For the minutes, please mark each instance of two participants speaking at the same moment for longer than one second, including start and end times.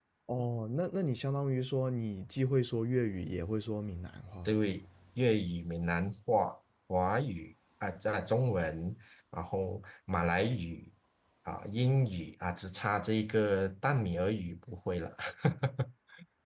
none

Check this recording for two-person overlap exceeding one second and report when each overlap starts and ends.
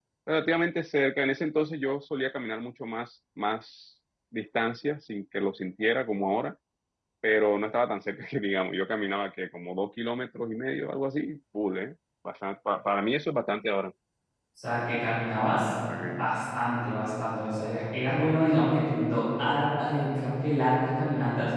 none

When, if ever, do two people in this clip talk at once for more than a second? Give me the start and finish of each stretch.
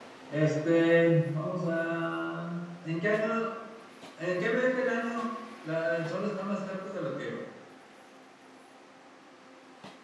none

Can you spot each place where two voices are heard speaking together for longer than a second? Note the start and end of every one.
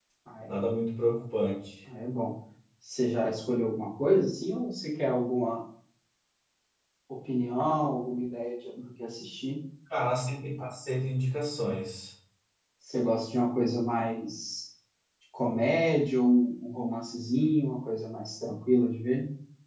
none

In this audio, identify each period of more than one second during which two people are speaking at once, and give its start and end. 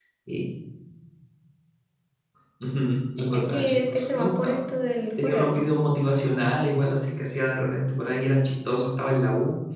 3.2-4.6

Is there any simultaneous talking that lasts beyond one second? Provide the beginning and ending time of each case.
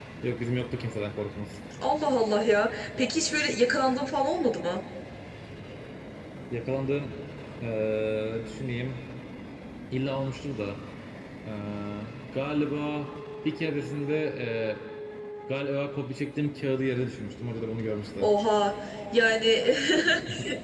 none

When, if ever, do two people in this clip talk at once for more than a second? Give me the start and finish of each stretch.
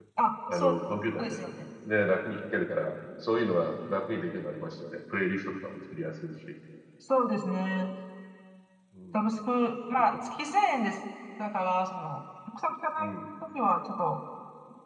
none

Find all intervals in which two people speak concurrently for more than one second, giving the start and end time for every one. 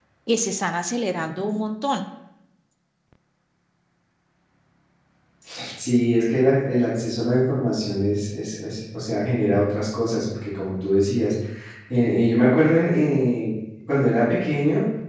none

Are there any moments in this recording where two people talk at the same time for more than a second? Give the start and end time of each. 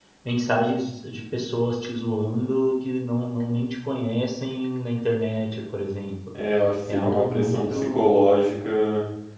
6.9-8.1

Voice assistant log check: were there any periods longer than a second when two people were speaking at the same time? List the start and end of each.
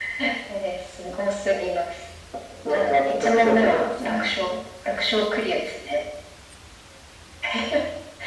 2.6-4.3

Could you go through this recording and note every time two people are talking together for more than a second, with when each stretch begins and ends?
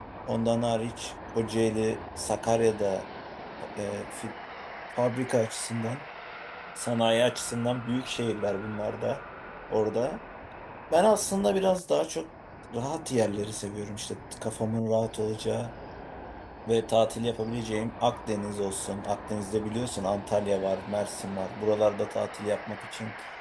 none

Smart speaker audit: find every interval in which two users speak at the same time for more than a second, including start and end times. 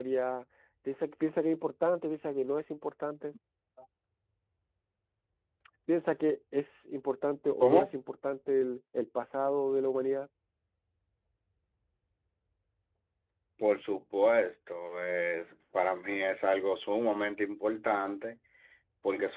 none

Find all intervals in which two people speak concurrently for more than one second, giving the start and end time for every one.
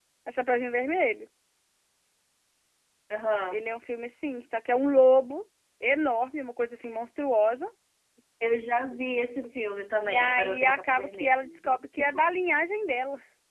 10.0-12.4

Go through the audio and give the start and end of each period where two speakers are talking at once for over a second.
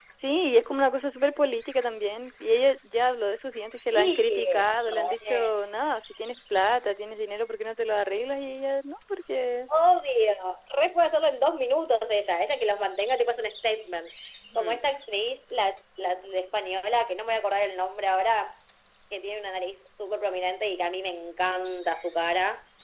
3.9-5.5

